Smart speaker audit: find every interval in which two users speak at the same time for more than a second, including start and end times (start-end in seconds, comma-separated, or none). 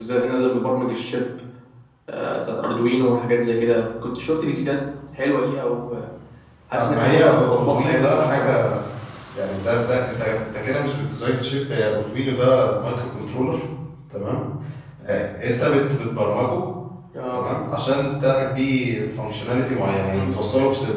6.9-8.5